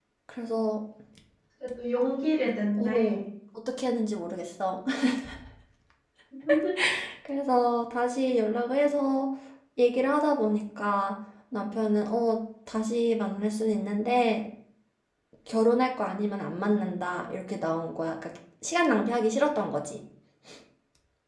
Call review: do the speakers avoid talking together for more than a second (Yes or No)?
Yes